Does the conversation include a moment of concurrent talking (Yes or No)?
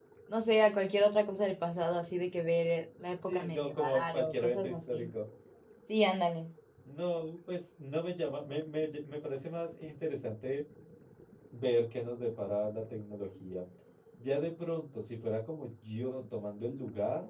Yes